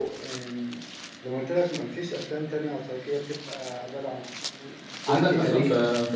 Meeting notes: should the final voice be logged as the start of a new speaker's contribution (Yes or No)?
Yes